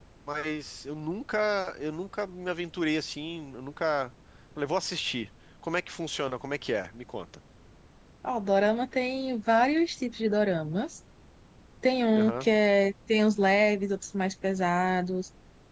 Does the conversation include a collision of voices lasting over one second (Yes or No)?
No